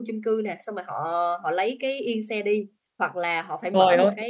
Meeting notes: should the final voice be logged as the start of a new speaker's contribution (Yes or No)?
No